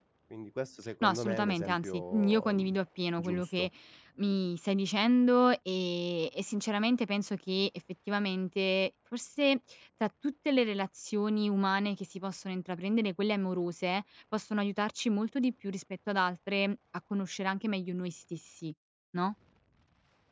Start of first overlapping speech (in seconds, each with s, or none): 1.0 s